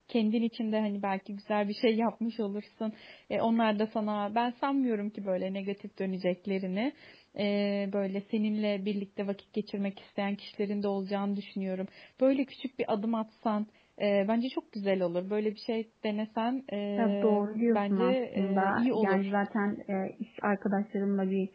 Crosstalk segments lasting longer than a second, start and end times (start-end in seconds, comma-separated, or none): 17.0-19.3